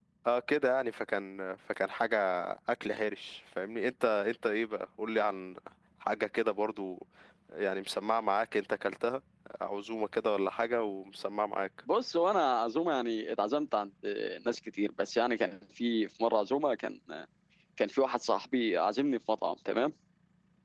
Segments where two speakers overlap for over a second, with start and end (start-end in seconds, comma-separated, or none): none